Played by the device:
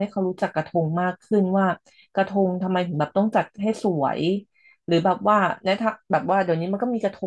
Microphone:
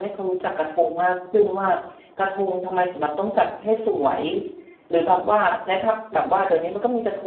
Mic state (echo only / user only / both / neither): echo only